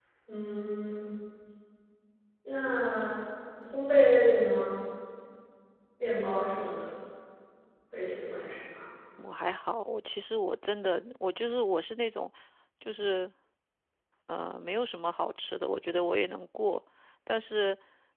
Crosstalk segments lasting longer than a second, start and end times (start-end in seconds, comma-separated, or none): none